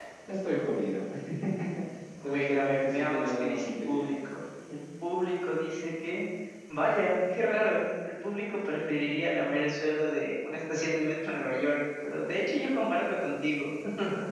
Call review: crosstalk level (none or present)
present